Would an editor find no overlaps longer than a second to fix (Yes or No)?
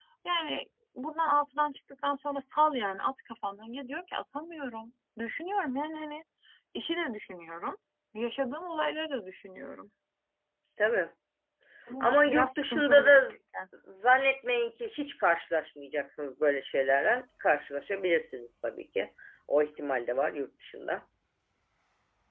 No